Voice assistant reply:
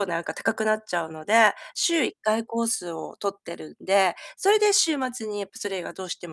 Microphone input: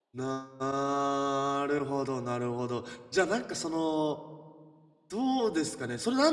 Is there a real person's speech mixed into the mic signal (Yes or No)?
Yes